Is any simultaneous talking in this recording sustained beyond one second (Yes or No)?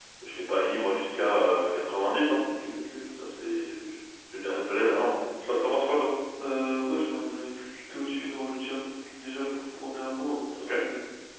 No